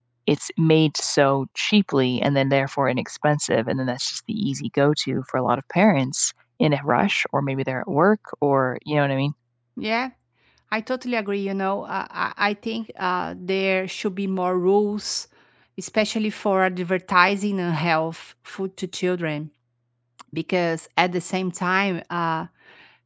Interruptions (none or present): none